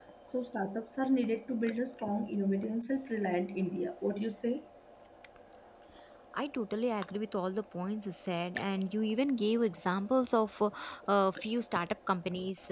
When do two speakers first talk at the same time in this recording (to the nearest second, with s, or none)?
none